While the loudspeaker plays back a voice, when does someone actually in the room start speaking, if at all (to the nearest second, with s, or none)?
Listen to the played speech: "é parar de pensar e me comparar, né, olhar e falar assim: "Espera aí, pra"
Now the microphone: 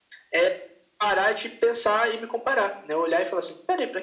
none